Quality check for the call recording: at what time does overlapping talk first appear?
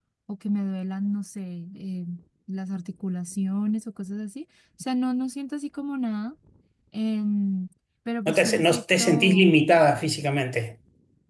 8.3 s

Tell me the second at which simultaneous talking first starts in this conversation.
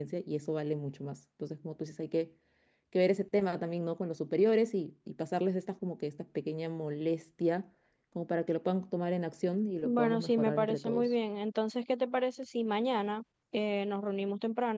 9.8 s

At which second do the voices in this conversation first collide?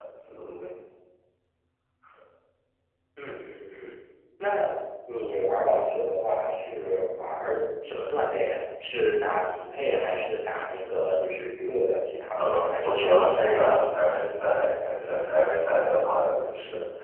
12.4 s

